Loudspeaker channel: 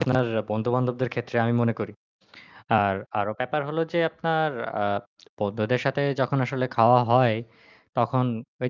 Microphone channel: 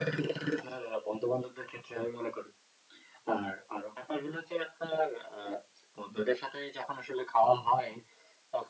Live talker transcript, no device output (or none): none